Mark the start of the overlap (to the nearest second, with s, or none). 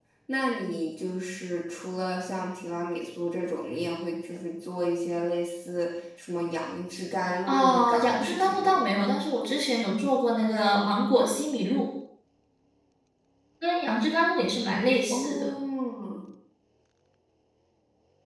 7 s